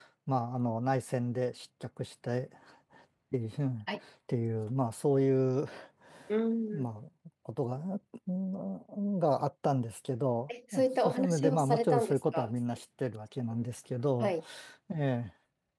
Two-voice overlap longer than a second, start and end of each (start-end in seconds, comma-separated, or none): 10.7-12.5